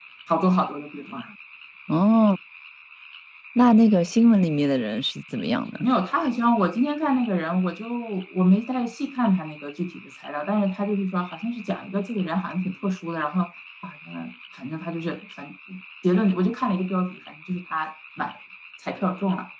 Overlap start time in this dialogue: none

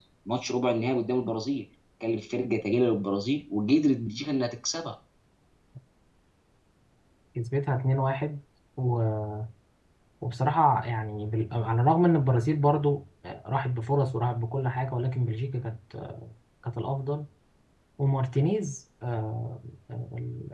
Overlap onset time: none

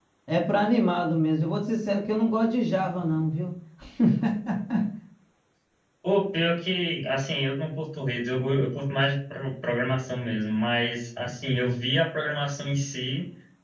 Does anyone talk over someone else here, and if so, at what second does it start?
none

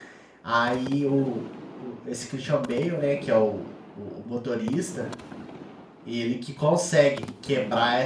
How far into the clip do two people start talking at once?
none

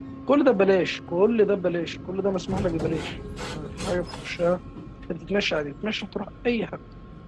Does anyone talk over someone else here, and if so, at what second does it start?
none

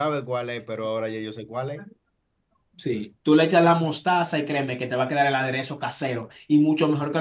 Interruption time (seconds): none

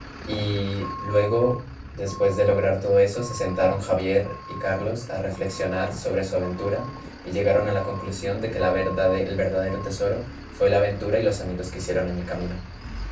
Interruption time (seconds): none

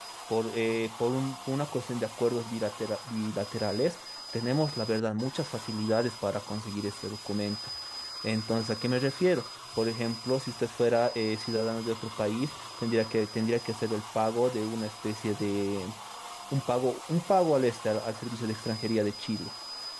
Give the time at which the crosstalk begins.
none

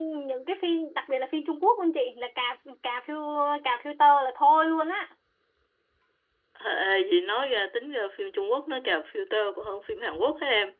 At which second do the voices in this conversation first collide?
none

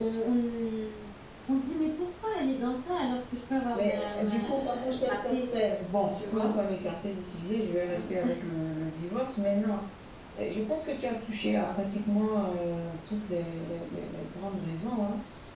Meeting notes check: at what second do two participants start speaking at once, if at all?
3.7 s

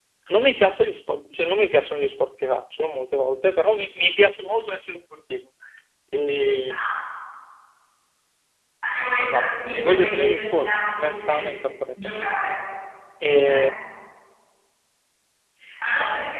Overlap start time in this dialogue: 9.2 s

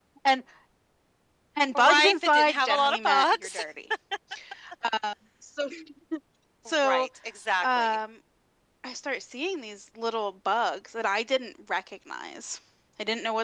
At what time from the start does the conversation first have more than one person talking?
1.7 s

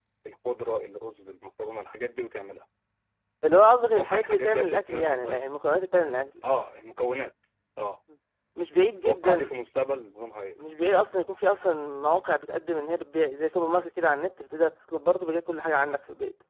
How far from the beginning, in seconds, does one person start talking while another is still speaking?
4.0 s

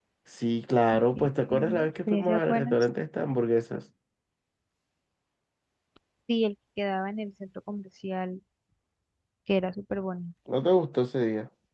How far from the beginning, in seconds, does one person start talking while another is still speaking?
1.2 s

